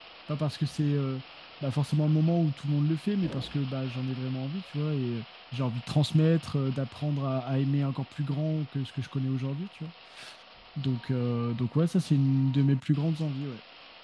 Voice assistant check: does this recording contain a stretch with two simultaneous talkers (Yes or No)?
No